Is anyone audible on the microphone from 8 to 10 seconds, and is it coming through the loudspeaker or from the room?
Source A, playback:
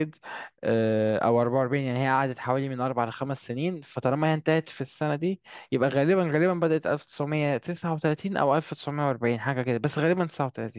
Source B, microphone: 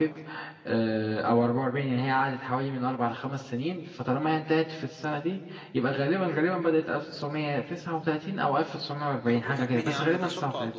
both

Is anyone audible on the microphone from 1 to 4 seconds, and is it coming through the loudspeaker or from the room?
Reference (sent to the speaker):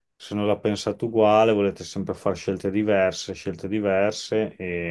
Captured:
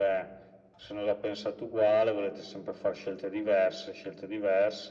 echo only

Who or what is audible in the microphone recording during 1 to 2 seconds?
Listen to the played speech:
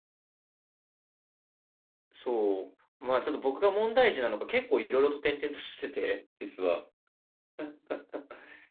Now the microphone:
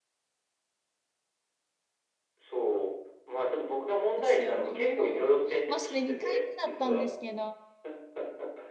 neither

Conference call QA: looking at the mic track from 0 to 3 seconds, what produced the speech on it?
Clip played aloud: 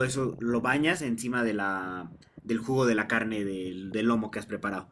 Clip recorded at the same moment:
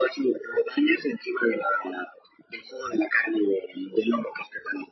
echo only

